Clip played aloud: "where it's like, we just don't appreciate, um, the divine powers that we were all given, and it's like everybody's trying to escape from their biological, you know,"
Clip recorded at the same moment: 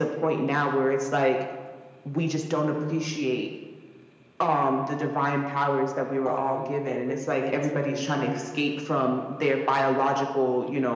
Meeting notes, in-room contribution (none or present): present